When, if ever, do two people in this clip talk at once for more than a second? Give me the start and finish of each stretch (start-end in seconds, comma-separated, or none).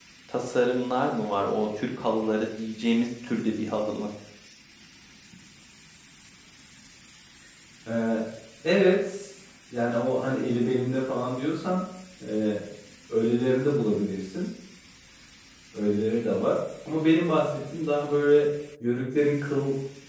none